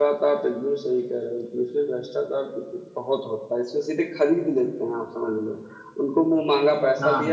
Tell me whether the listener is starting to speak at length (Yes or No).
No